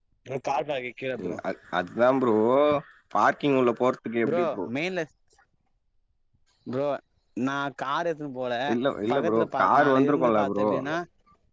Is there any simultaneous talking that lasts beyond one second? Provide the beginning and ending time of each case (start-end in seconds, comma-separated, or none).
9.1-10.7